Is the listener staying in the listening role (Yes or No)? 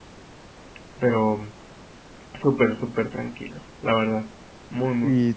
No